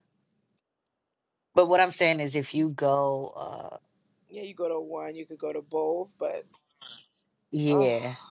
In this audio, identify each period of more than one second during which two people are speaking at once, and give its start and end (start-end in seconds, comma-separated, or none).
none